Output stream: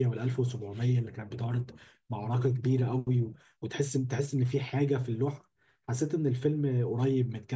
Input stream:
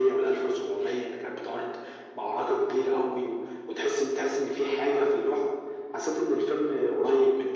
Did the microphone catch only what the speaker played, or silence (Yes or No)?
Yes